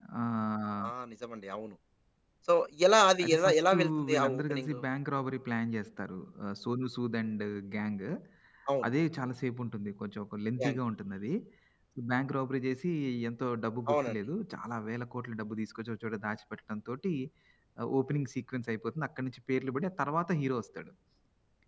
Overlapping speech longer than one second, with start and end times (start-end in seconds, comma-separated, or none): 3.2-4.8